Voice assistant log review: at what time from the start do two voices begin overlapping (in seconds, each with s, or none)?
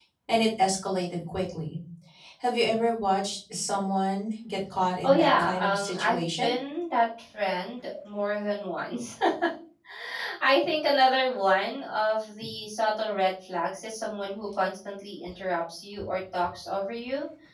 5.0 s